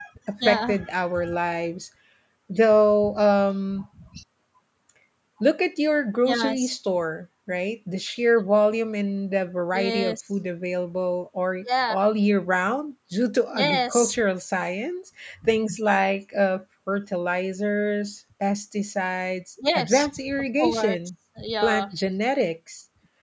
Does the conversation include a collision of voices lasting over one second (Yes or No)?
Yes